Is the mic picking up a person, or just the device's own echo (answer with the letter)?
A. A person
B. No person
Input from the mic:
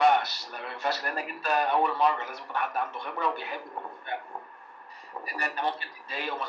B